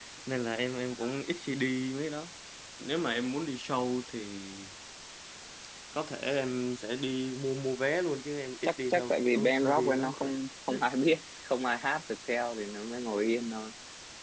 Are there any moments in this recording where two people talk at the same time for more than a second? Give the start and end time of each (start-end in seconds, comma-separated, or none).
8.6-10.3